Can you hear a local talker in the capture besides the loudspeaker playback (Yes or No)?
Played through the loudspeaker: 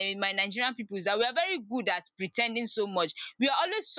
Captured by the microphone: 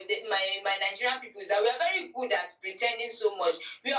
No